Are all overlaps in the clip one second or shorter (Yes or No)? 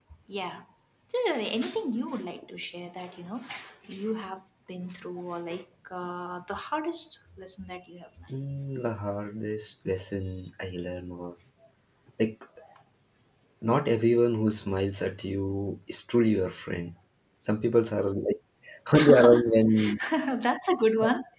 Yes